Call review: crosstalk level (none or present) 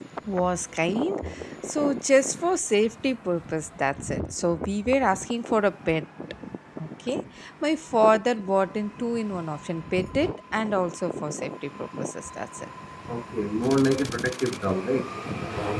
none